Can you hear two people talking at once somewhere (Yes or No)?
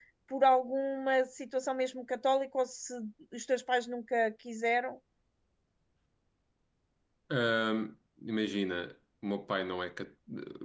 No